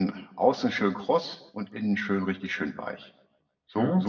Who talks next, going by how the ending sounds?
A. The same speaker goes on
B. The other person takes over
B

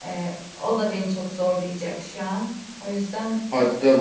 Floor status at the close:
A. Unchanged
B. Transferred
B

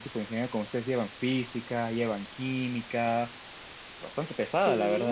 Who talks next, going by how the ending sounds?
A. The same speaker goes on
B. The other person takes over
B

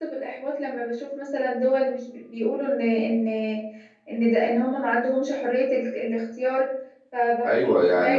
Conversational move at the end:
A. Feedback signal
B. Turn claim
B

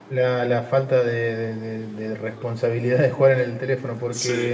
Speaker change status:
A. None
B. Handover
A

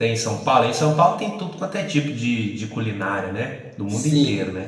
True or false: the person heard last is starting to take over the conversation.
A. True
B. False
A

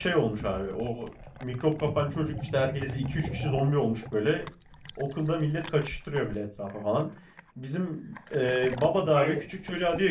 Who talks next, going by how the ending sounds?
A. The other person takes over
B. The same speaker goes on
B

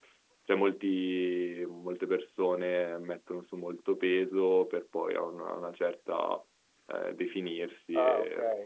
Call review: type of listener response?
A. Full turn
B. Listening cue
A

